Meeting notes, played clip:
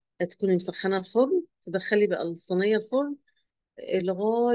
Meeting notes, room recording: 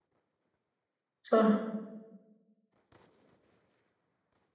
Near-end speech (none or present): present